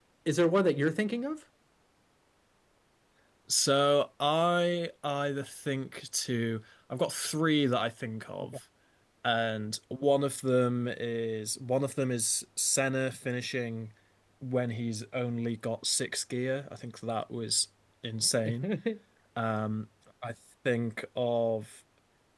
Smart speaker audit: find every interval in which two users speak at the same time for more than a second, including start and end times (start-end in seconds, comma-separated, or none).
none